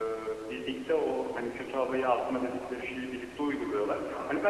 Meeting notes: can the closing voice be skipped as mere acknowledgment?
Yes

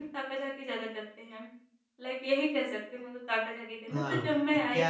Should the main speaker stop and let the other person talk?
Yes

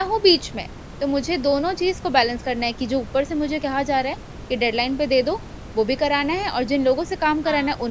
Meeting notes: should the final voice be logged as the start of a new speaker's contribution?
No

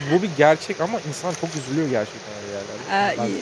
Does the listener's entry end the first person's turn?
Yes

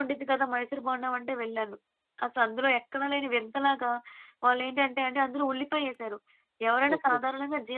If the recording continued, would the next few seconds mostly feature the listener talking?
No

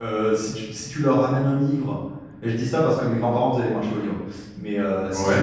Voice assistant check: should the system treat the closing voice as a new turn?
No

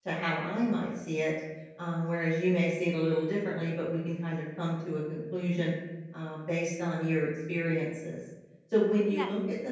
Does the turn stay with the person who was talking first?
Yes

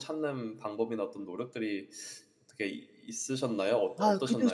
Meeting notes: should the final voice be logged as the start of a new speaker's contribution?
Yes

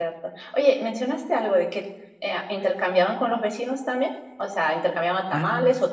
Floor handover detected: No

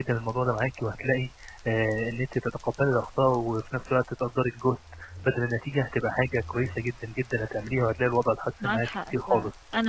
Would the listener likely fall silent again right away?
No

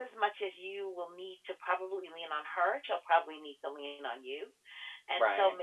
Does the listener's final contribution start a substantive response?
No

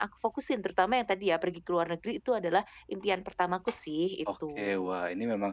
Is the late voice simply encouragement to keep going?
No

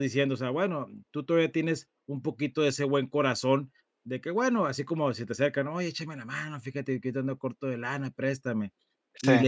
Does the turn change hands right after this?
No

